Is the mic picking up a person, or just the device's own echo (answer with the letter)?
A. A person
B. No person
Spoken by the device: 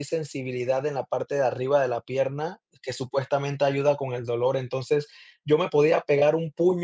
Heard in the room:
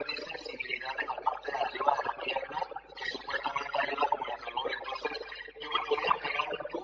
B